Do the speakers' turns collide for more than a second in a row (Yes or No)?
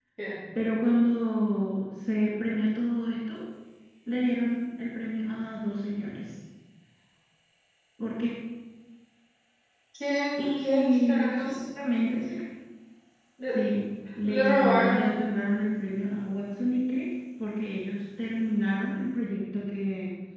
Yes